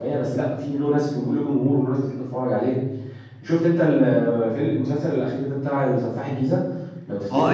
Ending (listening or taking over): taking over